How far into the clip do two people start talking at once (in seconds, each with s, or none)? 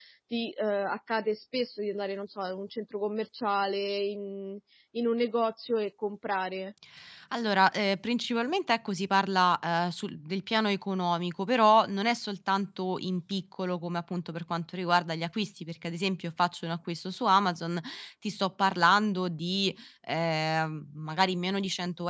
none